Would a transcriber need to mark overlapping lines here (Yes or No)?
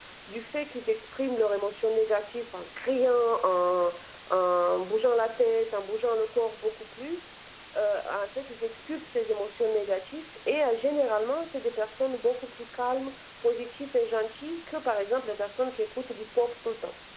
No